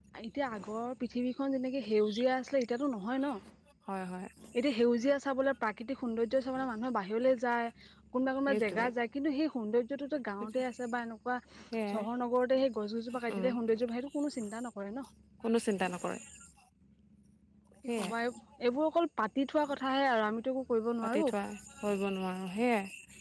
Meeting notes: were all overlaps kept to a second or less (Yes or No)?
Yes